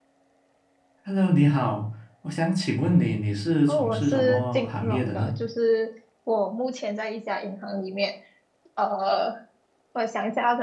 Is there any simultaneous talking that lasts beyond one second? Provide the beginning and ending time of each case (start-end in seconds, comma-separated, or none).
3.7-5.3